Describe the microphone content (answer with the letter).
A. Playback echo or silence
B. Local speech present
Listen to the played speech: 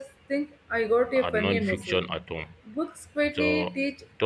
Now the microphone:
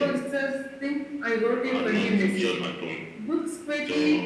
A